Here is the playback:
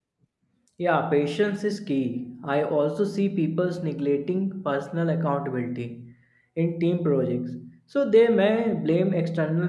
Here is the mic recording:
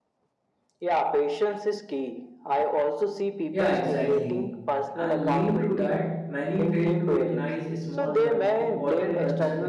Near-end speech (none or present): present